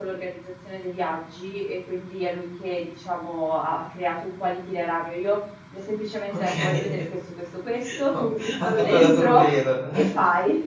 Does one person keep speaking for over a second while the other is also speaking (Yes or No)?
Yes